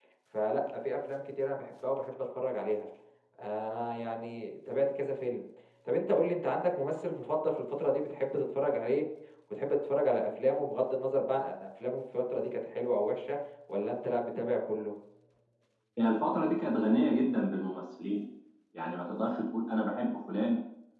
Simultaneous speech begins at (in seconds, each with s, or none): none